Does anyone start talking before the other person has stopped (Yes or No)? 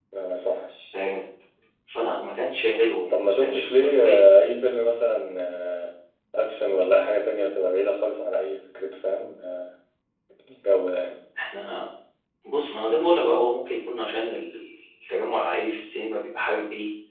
Yes